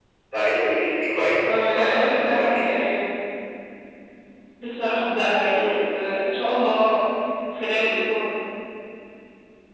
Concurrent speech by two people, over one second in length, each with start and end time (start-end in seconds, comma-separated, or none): 1.5-2.7